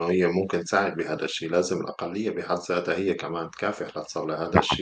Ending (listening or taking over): listening